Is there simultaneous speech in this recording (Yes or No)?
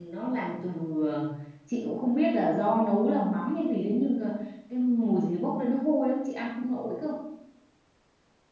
No